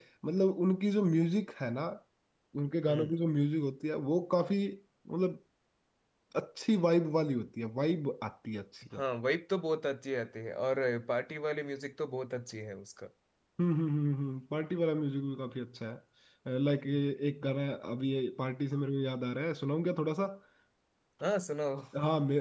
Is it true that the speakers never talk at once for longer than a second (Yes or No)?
Yes